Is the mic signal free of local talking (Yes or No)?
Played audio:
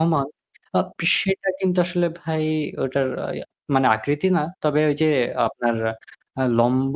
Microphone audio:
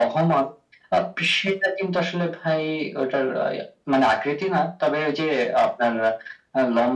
Yes